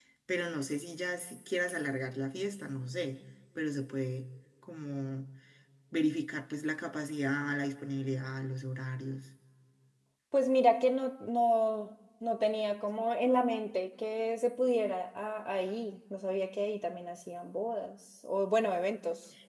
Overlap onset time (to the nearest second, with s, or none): none